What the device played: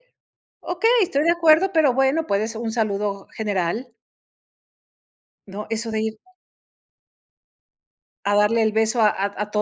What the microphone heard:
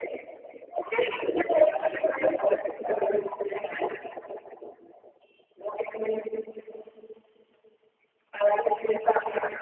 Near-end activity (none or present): none